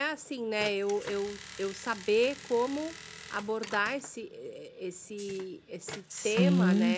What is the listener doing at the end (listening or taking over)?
taking over